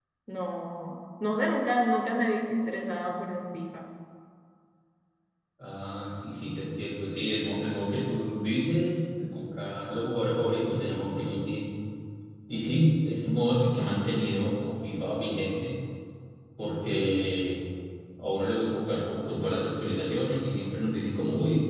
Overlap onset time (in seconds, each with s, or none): none